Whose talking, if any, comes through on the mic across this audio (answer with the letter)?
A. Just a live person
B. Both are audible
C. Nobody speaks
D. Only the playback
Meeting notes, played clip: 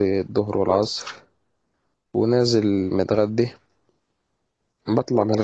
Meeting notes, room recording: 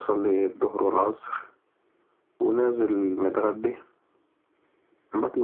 D